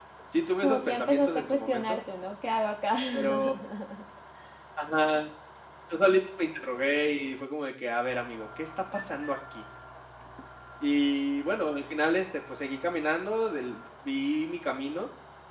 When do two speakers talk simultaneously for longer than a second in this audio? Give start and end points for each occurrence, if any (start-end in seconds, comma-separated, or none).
0.6-2.0